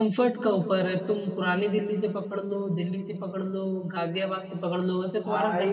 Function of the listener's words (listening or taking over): taking over